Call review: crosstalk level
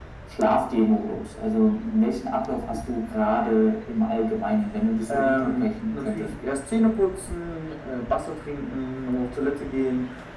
present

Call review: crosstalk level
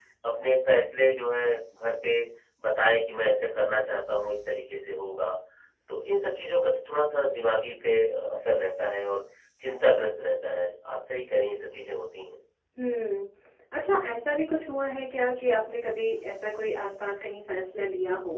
none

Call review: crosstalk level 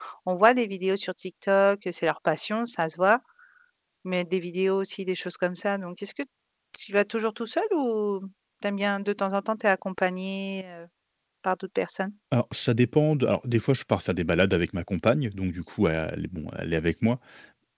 none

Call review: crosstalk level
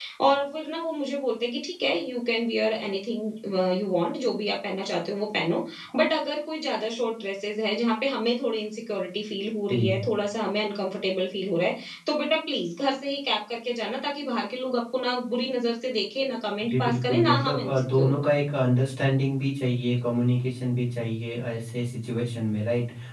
present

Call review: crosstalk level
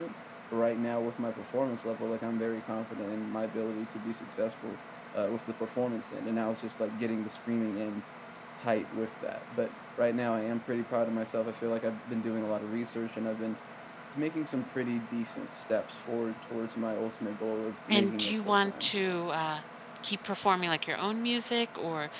present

